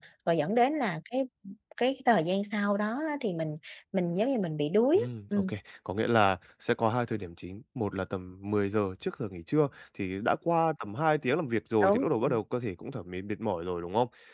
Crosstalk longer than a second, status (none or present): none